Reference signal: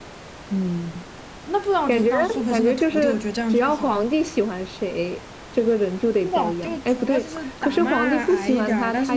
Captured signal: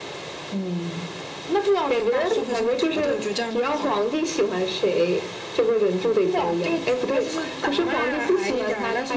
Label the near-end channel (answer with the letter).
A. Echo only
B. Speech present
A